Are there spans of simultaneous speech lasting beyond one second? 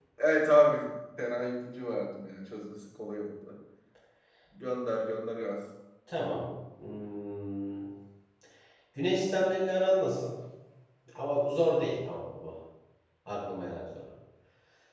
No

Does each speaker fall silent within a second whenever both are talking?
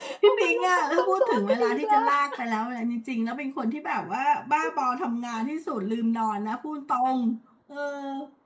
No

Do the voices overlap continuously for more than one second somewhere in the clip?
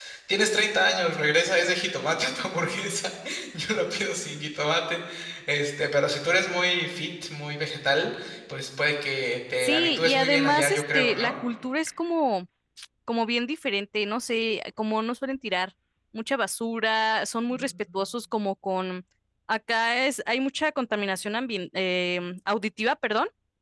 Yes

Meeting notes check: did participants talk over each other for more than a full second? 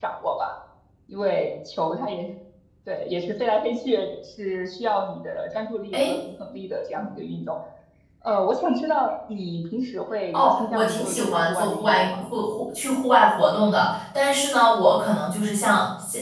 Yes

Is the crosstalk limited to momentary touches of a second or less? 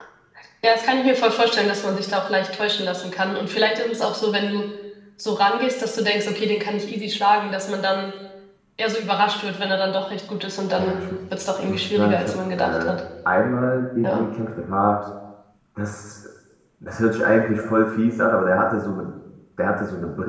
No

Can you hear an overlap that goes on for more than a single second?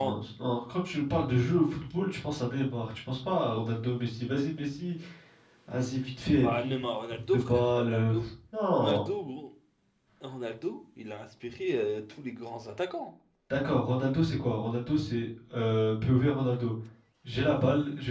Yes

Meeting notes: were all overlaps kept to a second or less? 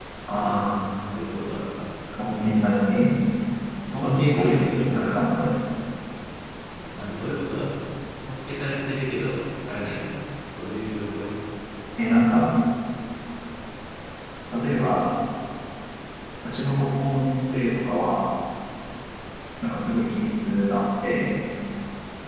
No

